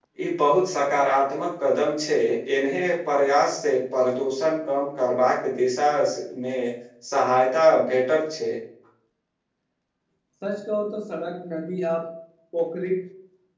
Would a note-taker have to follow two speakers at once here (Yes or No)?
No